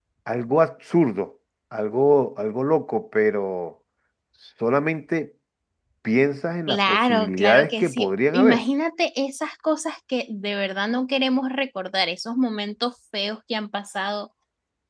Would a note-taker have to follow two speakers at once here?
Yes, from 6.7 s

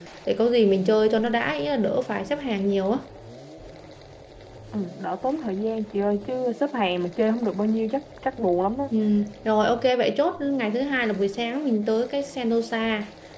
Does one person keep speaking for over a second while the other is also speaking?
No

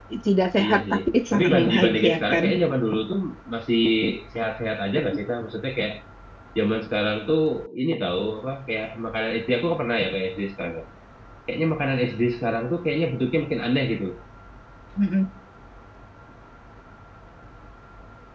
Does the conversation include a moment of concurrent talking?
Yes, from 0.6 s

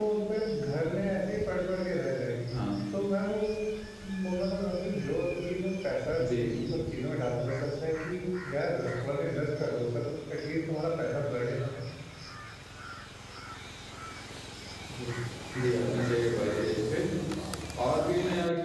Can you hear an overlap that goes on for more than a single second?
No

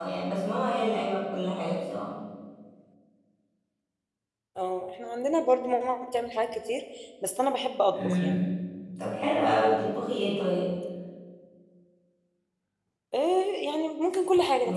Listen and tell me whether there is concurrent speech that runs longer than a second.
No

